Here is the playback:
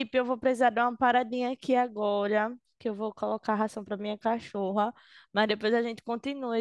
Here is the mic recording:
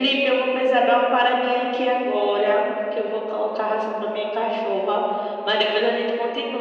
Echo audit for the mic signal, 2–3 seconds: echo only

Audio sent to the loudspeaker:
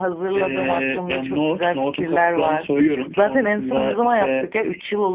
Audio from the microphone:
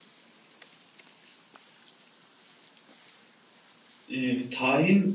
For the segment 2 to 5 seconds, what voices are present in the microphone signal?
user only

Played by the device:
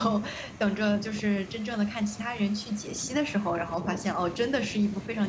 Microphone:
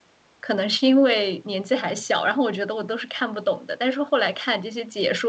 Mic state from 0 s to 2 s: user only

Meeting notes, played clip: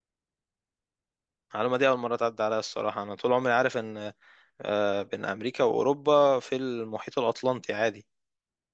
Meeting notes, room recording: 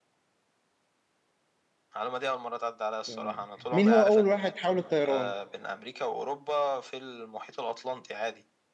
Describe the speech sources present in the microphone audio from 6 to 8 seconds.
echo only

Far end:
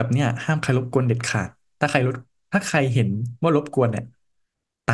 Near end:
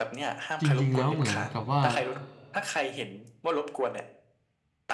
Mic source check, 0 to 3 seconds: both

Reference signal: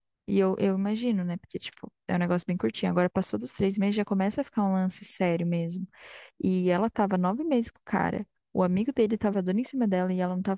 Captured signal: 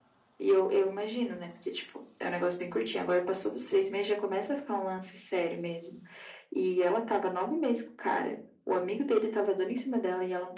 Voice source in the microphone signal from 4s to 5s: echo only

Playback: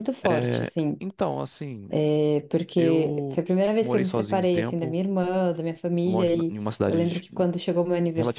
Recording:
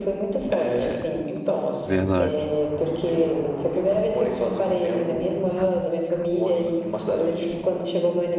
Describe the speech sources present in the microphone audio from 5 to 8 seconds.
echo only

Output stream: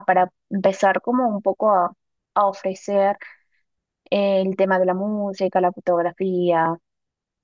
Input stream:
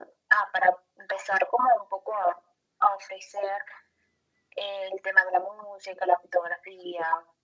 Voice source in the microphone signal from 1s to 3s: echo only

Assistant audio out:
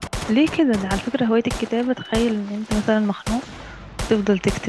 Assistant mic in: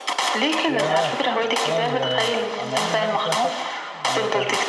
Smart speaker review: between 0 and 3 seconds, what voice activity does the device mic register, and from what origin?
both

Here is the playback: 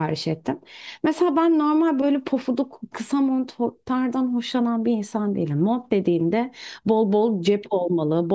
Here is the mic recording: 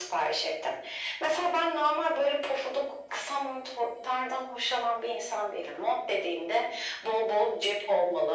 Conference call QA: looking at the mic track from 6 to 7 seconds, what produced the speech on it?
echo only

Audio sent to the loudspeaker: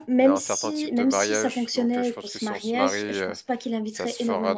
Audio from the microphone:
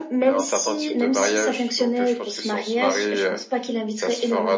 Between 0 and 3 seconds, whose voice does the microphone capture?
echo only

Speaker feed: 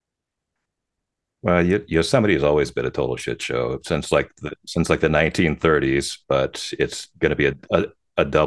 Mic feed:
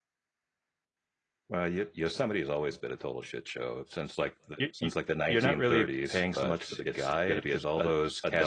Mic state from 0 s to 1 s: neither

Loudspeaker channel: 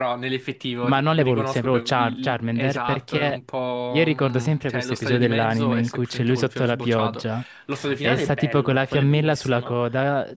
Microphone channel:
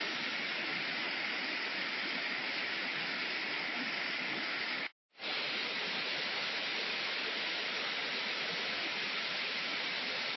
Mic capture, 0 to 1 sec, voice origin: neither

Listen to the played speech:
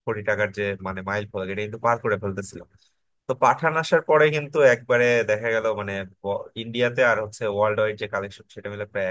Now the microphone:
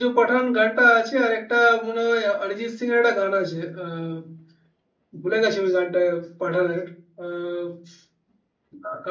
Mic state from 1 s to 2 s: user only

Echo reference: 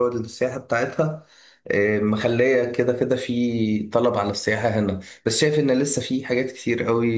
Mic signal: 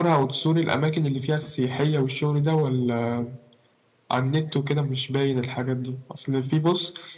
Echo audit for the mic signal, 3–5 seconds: user only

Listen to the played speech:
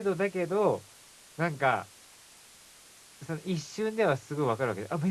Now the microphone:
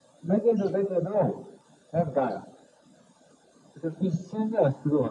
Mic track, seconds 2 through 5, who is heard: echo only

